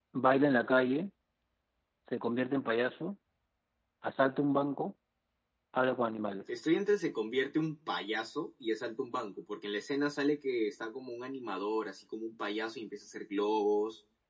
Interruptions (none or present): none